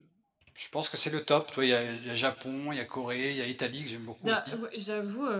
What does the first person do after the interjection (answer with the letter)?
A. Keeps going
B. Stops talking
B